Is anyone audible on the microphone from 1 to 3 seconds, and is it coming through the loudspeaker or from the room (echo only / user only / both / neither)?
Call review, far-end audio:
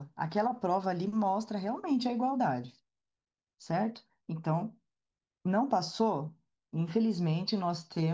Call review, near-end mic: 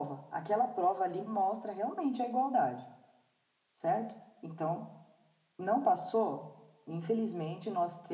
echo only